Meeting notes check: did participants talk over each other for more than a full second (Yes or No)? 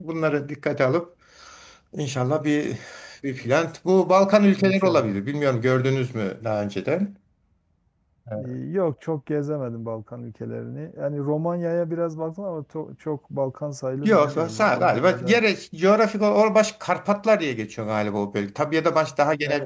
Yes